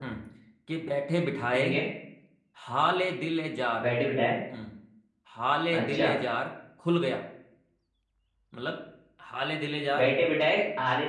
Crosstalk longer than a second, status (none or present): none